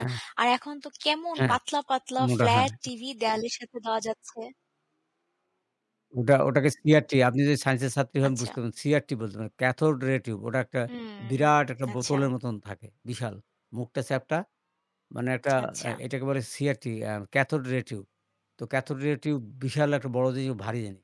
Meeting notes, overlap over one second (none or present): none